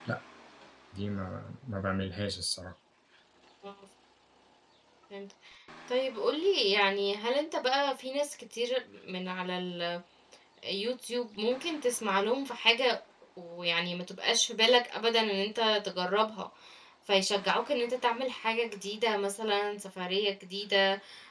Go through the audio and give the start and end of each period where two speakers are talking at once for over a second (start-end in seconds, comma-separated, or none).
none